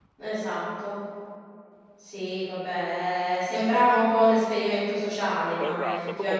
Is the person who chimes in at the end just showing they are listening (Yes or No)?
No